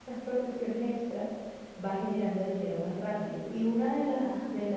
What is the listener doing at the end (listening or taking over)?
listening